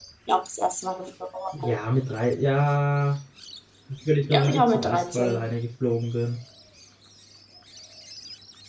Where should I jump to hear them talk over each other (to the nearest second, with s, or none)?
4 s